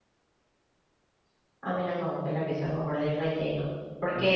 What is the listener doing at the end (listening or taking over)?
listening